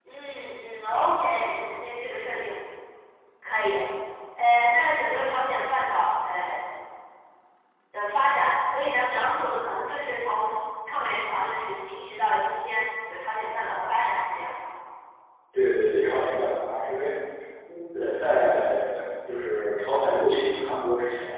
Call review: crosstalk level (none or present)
none